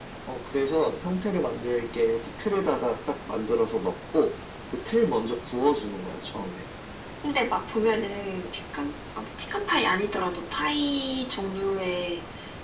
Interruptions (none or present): none